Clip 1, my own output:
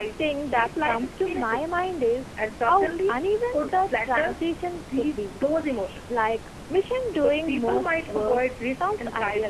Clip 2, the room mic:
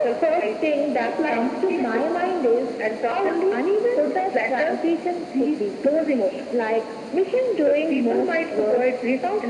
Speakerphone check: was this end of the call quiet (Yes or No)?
Yes